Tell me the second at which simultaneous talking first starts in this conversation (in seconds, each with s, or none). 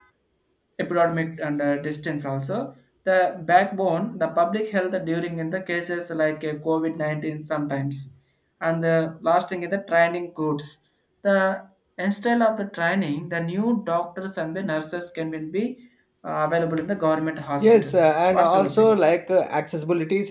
17.6 s